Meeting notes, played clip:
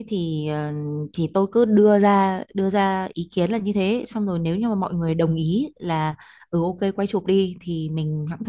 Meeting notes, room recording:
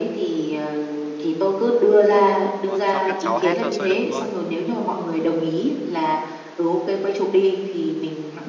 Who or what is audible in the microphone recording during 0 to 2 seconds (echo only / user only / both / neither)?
echo only